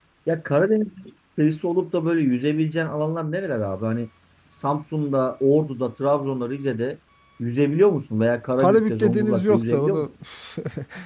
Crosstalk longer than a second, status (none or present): present